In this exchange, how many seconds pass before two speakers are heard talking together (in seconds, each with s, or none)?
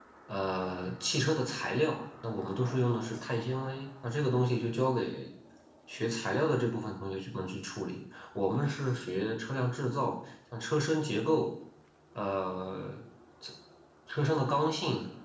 none